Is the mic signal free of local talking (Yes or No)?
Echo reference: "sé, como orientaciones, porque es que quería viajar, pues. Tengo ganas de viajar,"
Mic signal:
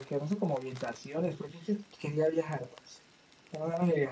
Yes